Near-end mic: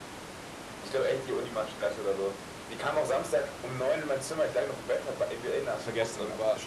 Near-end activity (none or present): present